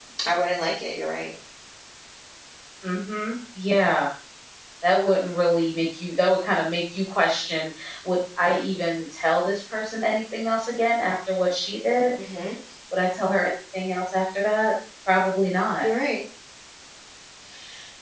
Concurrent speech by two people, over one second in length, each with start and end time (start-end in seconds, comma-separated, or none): none